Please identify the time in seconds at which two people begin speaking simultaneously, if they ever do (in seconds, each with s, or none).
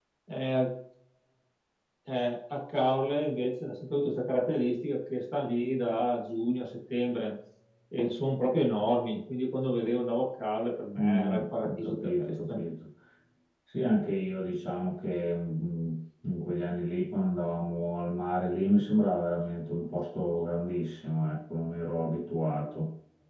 11.0 s